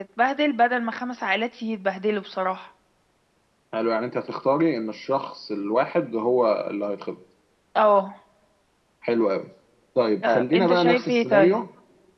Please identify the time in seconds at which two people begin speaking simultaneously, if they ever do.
10 s

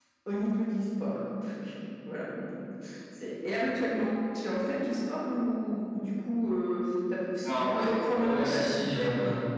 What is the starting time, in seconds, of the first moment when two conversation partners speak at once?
7 s

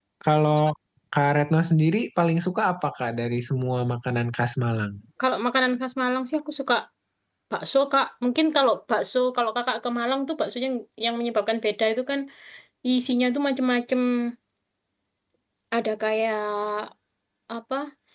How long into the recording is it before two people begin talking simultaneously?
none

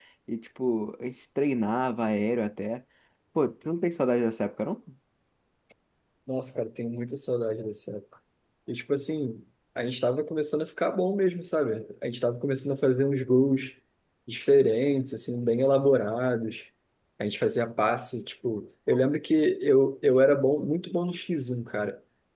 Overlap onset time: none

